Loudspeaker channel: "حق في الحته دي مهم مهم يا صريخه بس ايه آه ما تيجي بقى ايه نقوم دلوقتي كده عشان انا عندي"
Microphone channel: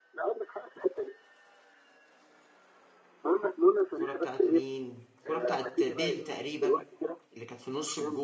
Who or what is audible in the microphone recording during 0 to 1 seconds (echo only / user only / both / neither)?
echo only